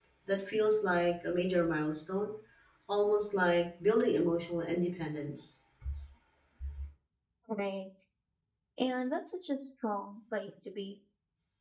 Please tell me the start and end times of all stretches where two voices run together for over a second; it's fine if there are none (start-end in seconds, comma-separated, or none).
none